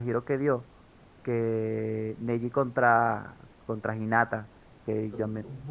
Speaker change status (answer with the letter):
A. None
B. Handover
A